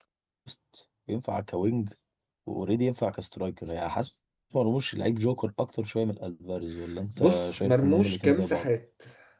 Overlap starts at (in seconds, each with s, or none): 7.2 s